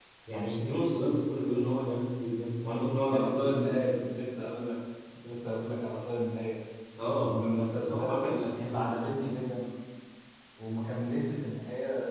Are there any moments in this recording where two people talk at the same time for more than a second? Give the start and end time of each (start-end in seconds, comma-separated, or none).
7.2-8.8